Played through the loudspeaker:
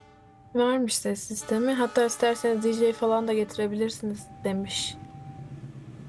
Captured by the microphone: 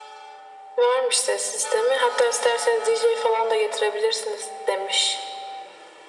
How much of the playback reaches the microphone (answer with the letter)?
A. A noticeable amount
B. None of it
A